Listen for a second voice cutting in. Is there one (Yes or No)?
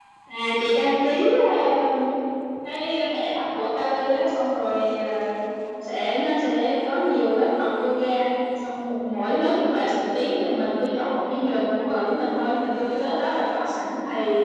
No